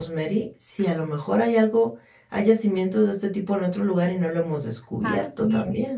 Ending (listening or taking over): taking over